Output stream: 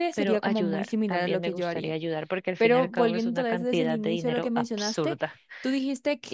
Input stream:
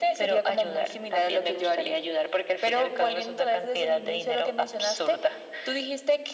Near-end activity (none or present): none